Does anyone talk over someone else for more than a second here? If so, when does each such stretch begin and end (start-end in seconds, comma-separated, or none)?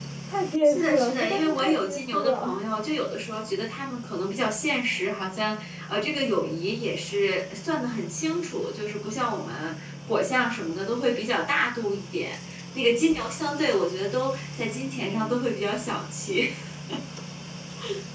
0.7-2.6